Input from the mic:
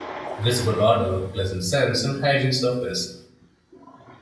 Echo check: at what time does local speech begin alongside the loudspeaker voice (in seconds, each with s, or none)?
0.4 s